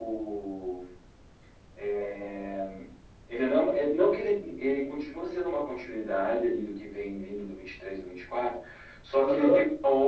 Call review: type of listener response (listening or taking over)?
listening